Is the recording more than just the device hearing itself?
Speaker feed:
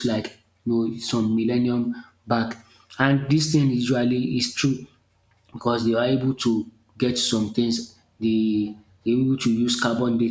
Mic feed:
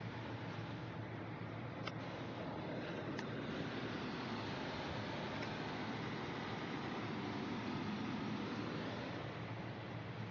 No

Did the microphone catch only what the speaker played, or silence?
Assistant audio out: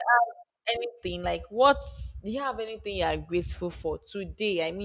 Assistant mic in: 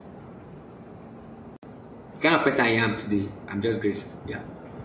No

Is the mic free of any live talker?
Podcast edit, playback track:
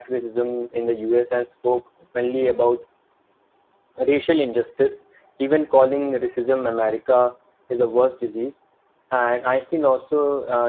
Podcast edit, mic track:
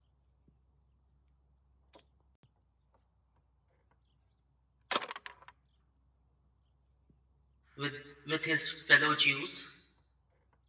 No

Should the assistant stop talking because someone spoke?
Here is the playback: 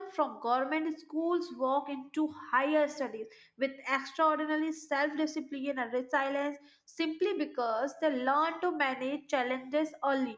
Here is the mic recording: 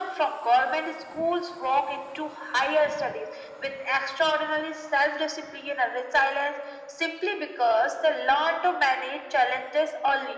No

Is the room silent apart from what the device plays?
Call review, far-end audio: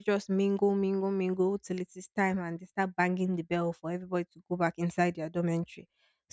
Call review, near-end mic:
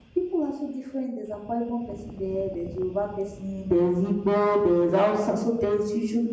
No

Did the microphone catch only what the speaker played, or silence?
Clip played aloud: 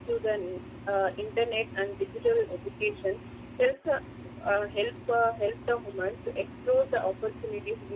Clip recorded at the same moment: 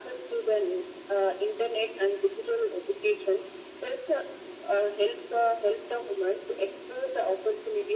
Yes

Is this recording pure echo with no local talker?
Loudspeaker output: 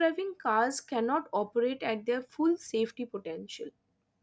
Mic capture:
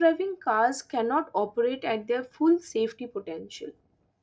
Yes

